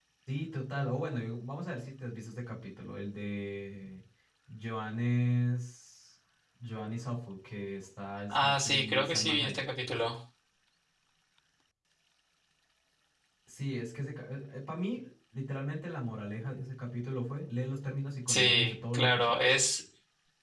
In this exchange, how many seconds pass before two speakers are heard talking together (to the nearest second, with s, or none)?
8 s